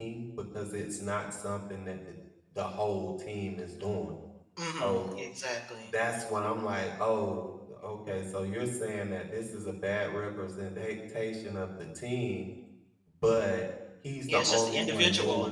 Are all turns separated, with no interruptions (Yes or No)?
No